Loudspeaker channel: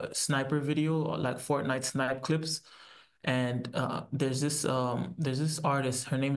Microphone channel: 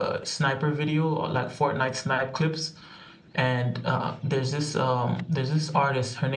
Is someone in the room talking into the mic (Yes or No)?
No